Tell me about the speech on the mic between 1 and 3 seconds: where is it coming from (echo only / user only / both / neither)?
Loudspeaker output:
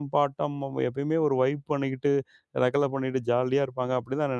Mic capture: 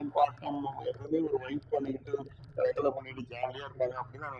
echo only